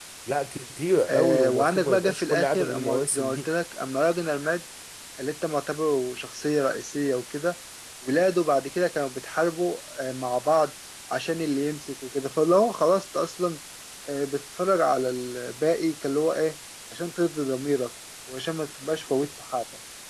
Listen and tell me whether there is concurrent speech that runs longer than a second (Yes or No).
Yes